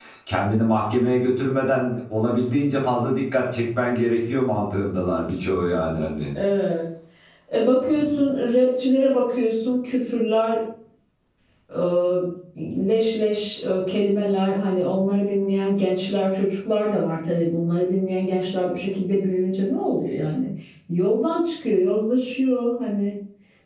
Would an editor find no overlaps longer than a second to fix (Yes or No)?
Yes